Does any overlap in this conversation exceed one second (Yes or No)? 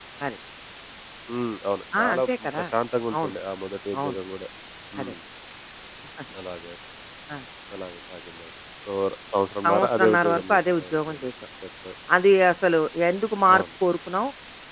Yes